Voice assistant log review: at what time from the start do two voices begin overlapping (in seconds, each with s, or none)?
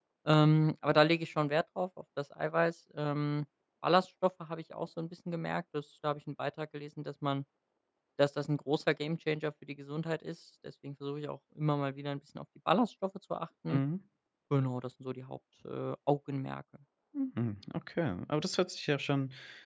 none